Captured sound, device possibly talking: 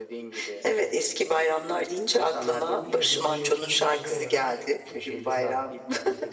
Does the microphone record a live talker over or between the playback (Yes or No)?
Yes